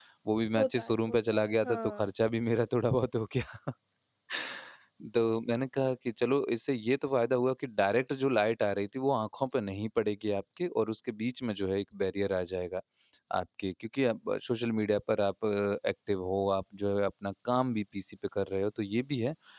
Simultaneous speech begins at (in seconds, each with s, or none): 0.6 s